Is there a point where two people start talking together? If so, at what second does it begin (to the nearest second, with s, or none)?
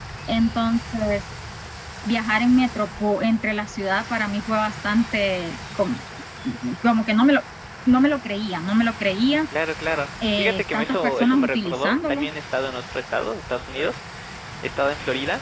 10 s